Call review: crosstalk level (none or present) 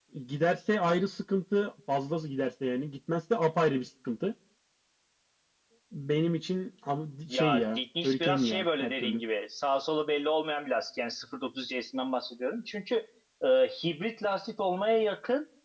present